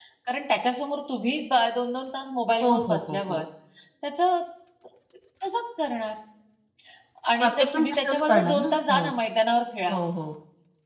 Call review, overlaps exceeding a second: present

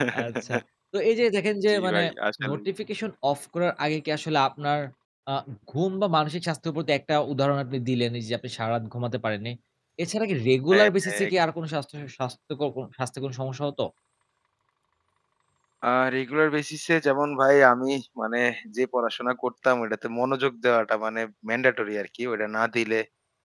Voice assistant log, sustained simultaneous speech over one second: none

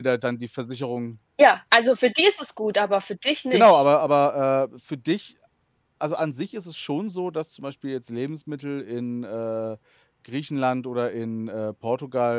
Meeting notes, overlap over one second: none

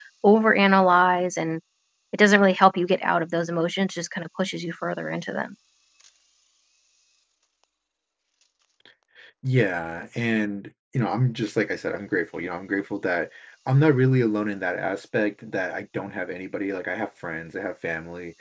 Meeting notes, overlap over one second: none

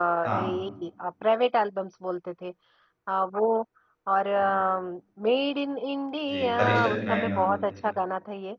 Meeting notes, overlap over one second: present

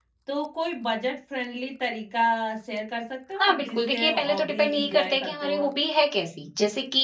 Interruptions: present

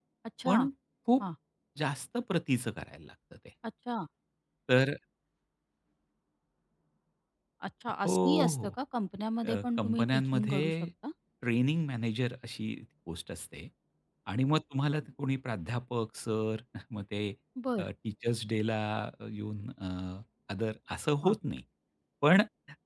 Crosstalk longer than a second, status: present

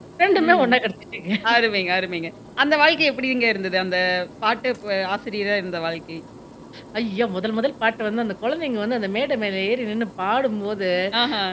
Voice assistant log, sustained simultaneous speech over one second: none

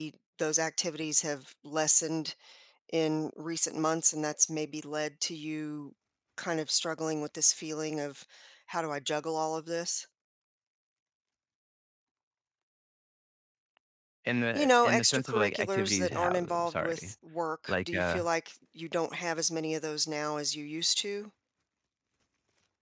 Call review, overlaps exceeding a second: present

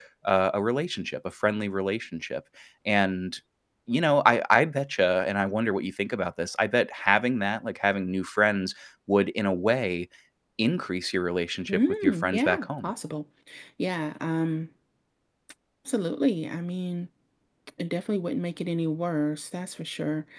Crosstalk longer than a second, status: present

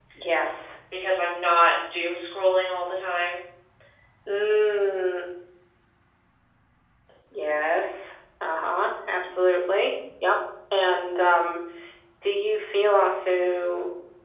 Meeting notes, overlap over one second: none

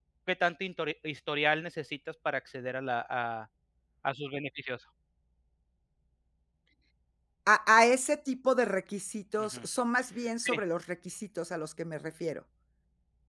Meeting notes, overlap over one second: none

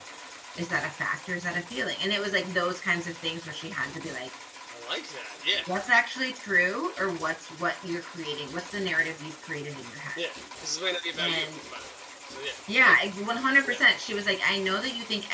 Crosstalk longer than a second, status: none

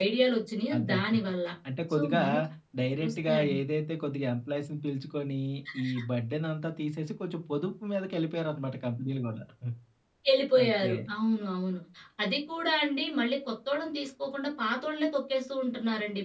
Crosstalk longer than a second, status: none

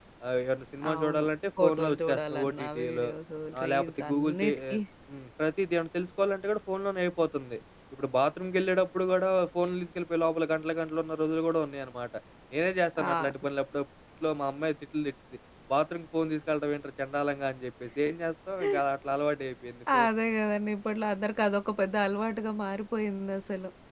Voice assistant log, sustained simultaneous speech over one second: present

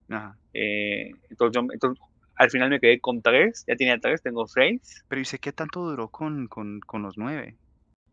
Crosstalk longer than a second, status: none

